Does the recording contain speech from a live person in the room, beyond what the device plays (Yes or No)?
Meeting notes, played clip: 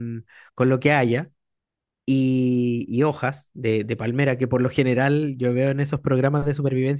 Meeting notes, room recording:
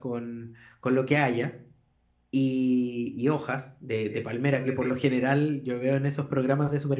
Yes